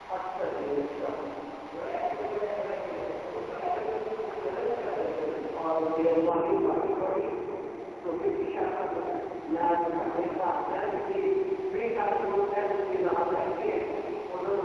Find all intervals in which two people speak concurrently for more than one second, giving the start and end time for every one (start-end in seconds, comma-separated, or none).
none